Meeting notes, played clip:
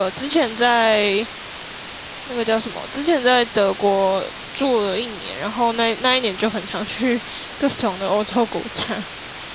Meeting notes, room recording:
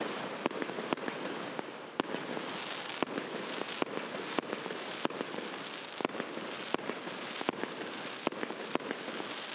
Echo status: none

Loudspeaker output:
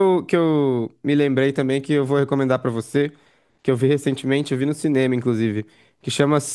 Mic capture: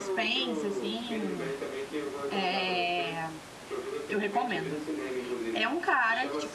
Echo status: present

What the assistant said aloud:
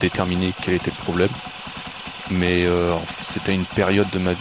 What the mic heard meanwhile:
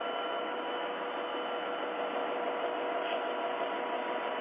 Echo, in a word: none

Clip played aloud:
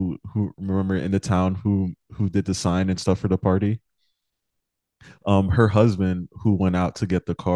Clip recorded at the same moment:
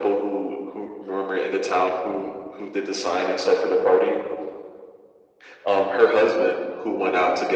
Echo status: present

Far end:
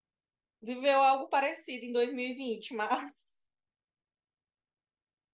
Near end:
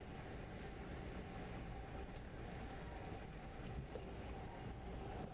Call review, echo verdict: none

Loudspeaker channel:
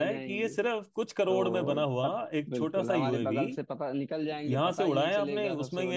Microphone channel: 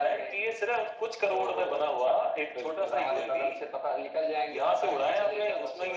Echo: present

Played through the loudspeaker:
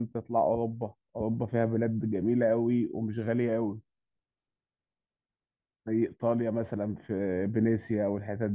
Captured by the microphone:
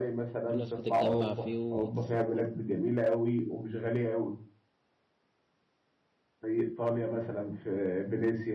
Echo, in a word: present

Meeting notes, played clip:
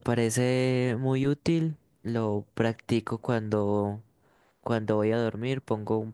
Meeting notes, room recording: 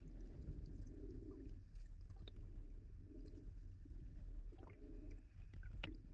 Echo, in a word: none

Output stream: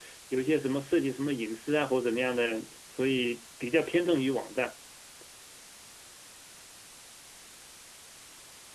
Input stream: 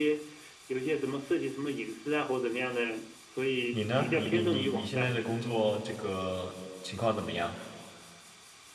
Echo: present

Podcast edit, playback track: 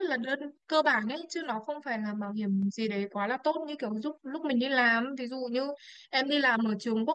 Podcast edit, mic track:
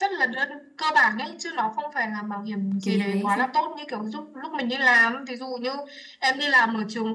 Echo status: present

